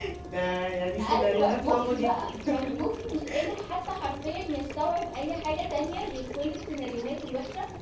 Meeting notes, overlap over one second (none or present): present